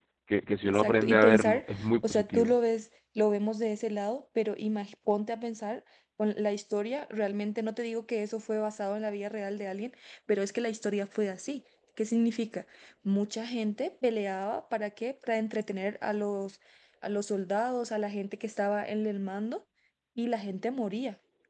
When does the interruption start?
0.7 s

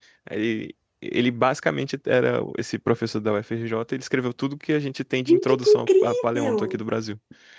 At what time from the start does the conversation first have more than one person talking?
5.3 s

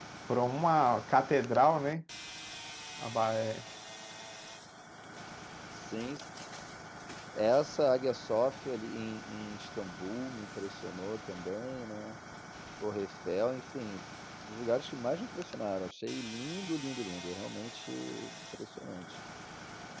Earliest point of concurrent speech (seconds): none

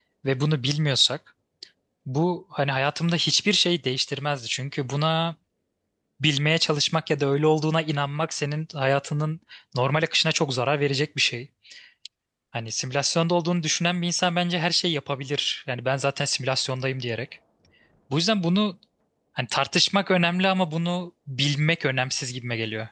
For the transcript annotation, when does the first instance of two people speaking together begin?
none

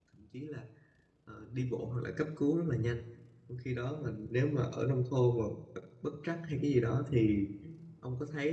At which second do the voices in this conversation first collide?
none

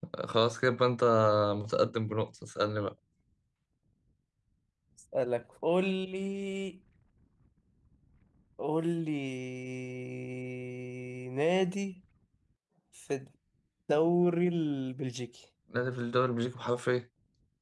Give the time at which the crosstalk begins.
none

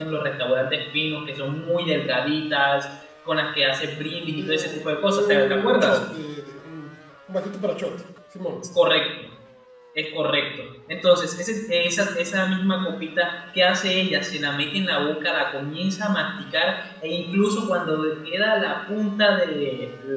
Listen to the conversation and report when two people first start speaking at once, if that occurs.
4.4 s

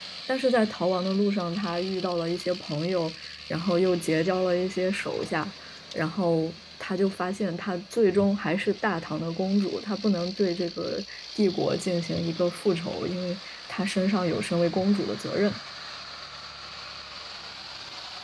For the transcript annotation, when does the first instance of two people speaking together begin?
none

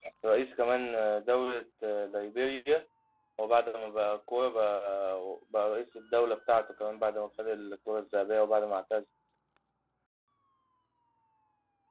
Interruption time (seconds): none

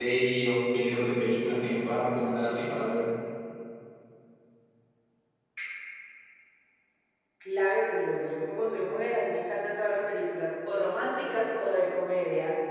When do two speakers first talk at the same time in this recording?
none

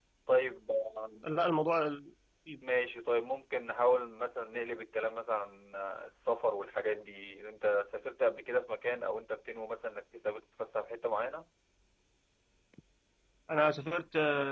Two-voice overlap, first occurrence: none

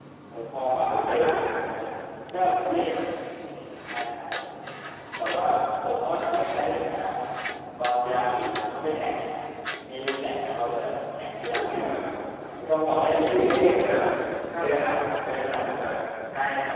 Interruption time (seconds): 0.5 s

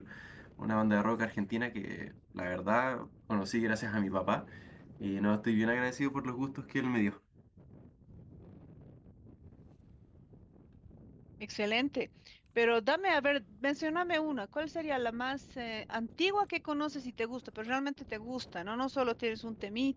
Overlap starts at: none

